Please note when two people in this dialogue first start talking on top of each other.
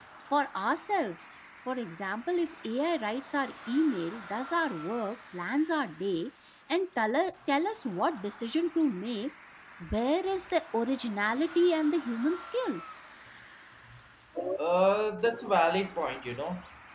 none

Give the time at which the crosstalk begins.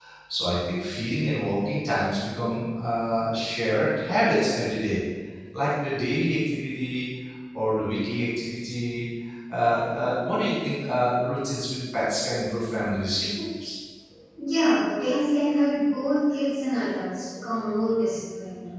none

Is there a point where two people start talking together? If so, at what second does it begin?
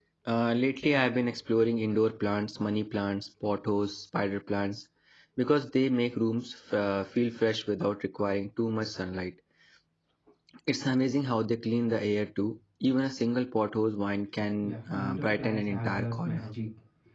14.6 s

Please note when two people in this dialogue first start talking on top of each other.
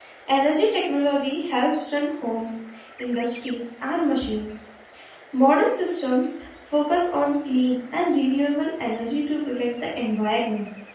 none

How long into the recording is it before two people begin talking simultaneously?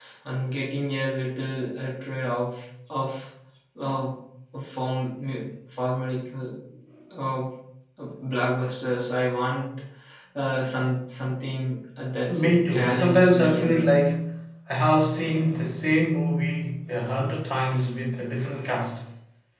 12.3 s

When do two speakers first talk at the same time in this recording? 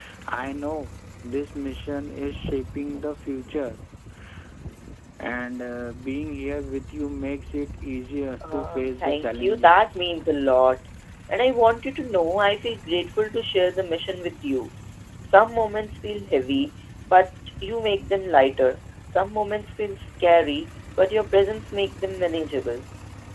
8.4 s

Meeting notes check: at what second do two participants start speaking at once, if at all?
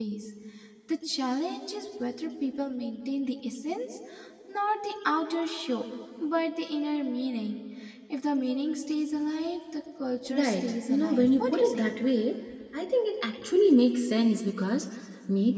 10.3 s

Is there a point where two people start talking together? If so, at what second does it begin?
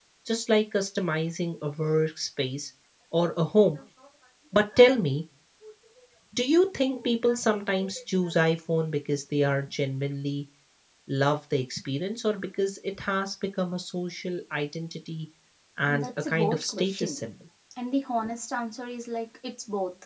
15.9 s

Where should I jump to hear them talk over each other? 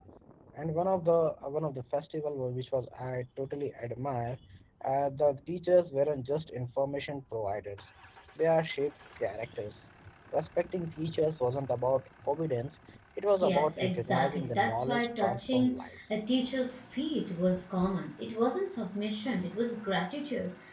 13.4 s

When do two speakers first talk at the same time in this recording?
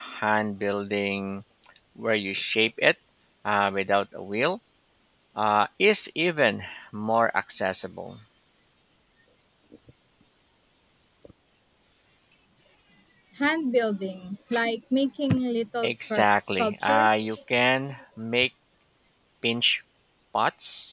15.8 s

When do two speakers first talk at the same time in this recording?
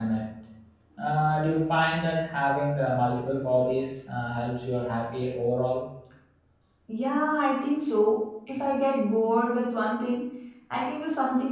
none

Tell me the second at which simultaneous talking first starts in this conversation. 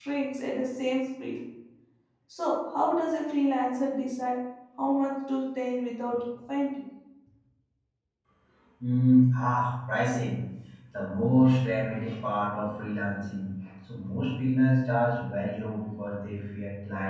none

